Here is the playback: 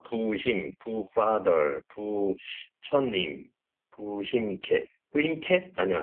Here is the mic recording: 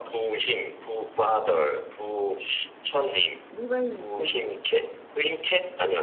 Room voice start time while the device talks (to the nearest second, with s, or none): 4 s